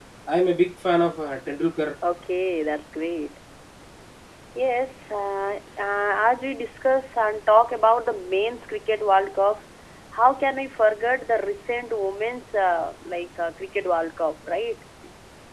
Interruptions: none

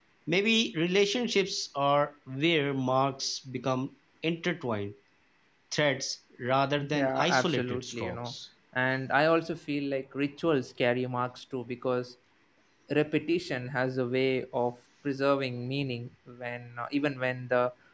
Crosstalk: present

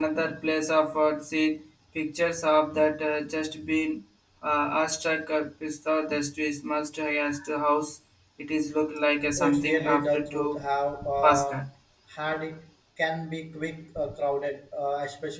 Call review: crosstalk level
present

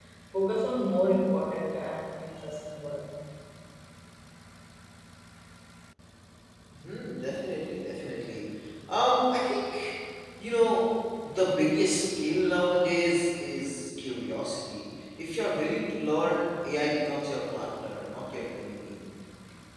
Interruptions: none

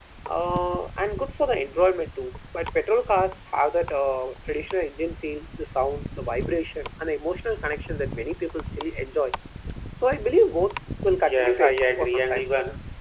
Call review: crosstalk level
present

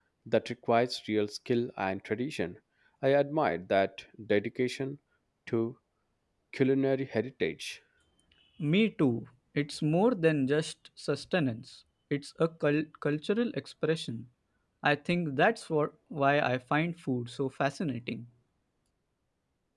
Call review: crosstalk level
none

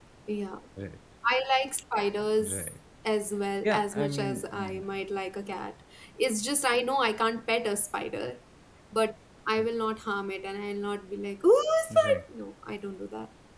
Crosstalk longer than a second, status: present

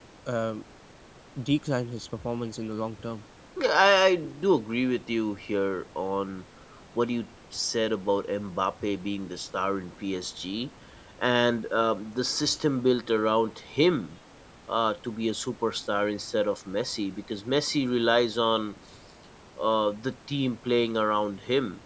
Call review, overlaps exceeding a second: none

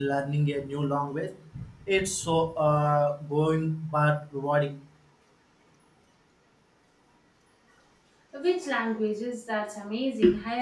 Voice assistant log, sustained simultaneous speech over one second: none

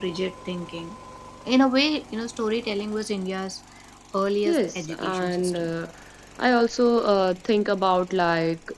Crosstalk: present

